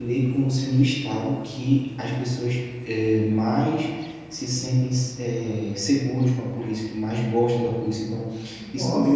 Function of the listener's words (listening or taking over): listening